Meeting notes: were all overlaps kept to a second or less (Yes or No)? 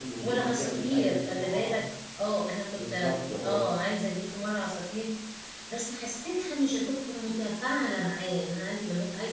No